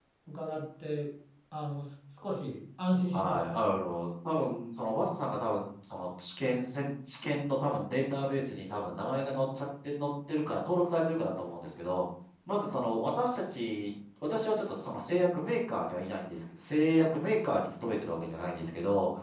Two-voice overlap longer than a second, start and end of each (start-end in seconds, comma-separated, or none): none